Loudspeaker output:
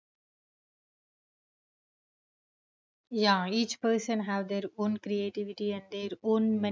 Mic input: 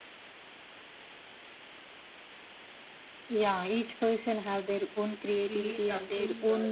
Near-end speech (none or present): present